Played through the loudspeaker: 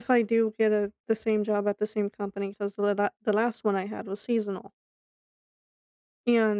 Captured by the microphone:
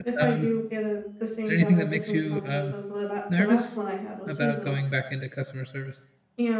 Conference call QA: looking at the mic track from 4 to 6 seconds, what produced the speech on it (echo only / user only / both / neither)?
both